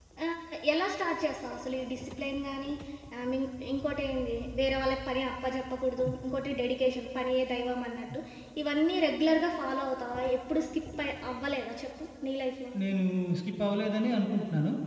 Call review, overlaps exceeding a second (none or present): none